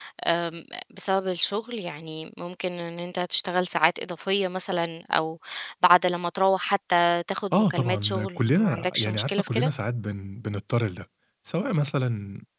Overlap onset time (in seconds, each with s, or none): 7.5 s